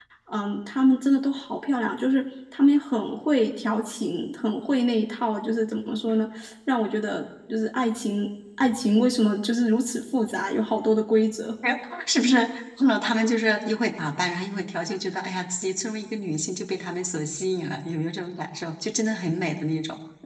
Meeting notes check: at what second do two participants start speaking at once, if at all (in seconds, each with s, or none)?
none